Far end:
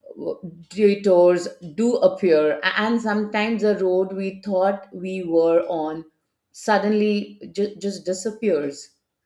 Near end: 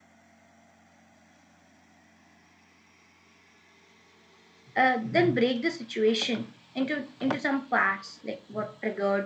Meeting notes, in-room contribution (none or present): present